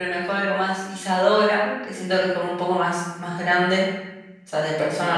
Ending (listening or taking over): taking over